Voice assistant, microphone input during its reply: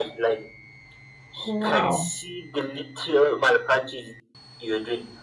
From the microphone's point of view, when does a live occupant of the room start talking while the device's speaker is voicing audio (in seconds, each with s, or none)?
1.4 s